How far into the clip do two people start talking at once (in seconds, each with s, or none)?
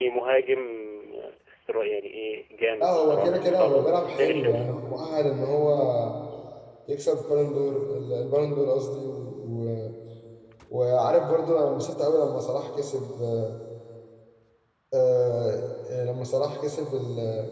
2.8 s